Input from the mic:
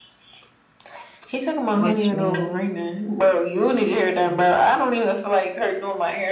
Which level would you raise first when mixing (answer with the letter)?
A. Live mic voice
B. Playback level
A